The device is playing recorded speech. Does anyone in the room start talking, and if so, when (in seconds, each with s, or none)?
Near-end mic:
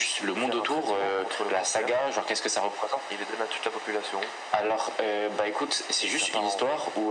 none